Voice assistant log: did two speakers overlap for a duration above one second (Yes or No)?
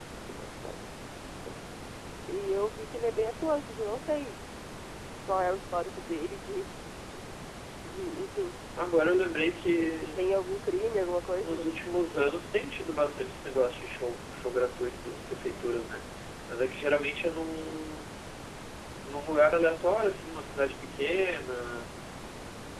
No